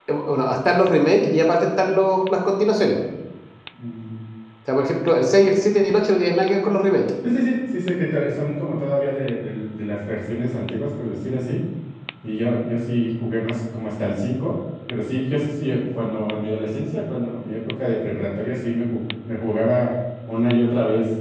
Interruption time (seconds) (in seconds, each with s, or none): none